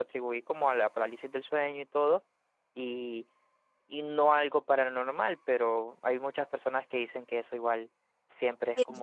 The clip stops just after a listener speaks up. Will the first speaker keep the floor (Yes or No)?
No